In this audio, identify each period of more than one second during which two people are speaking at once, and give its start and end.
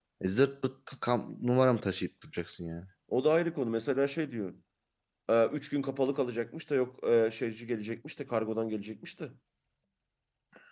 none

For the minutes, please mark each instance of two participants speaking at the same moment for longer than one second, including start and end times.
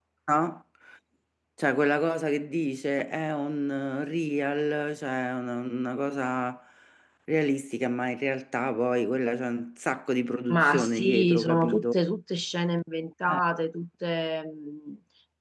10.5-12.0

